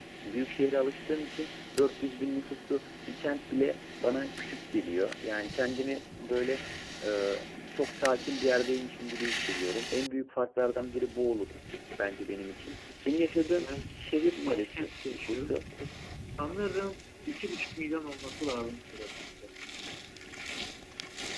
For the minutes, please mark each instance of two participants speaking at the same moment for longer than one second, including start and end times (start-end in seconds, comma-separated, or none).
14.4-15.7